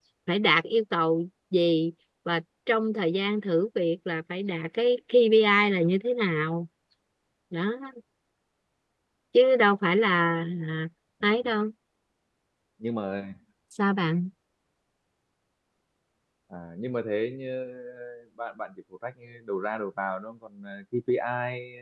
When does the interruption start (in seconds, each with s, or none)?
none